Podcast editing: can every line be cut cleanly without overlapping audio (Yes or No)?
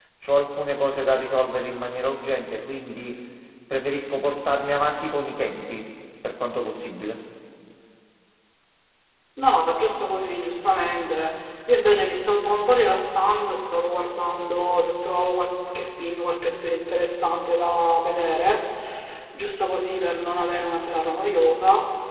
Yes